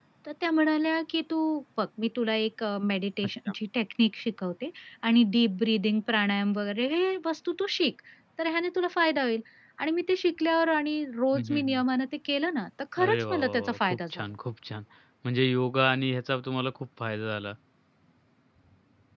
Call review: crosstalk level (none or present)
present